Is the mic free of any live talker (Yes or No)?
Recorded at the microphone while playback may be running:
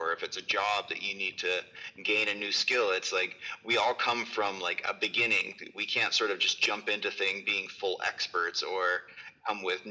Yes